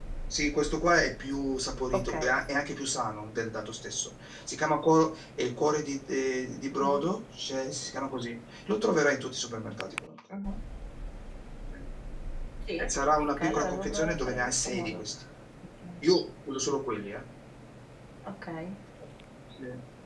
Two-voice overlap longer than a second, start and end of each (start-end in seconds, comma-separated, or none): 13.3-15.0